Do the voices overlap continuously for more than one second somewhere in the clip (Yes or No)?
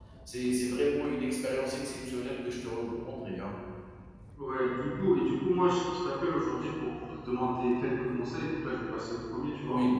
No